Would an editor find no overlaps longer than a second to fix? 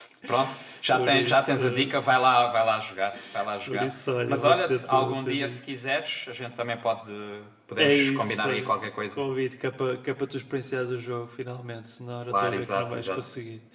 No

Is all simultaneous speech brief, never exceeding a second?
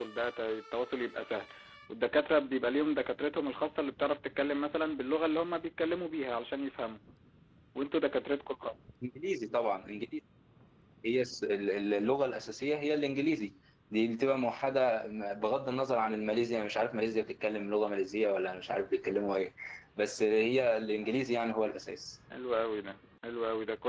Yes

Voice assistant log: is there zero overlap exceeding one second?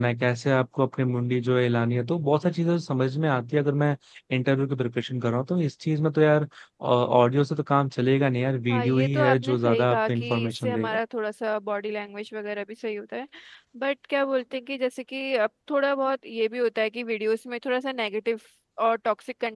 No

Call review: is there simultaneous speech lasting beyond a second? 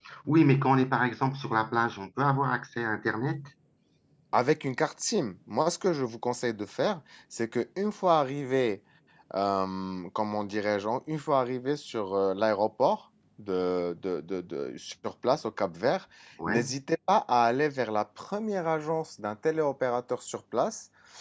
No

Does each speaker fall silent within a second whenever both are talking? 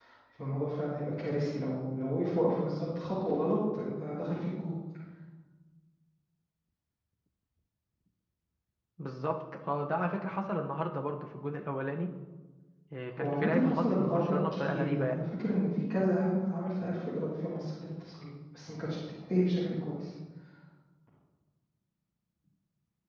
No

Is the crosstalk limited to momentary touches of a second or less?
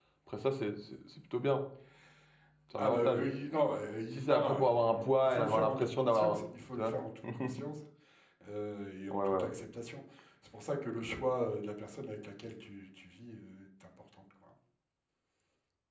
No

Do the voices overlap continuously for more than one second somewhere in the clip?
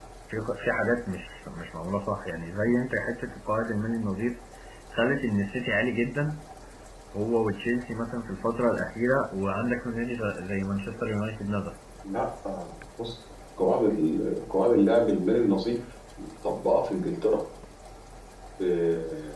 No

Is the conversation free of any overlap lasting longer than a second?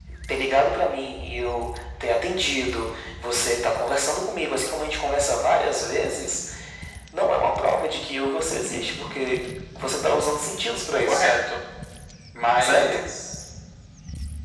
Yes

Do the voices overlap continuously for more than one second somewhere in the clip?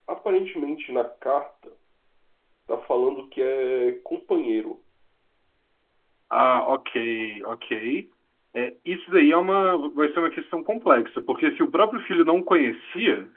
No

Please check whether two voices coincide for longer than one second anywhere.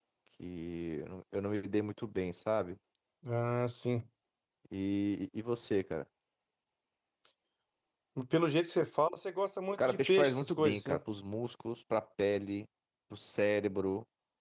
Yes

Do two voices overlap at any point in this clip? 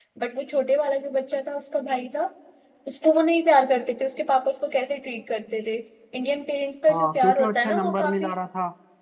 Yes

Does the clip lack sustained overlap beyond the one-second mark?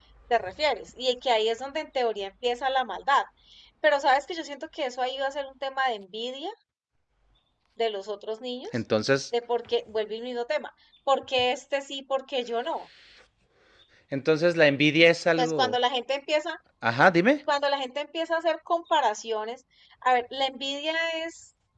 Yes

